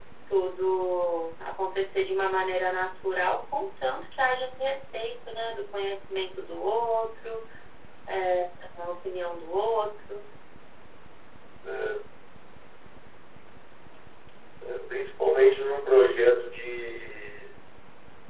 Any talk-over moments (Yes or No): No